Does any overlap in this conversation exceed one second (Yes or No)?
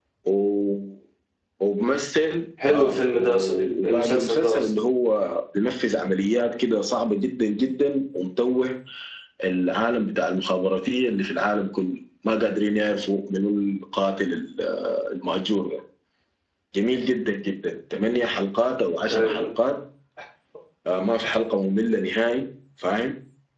Yes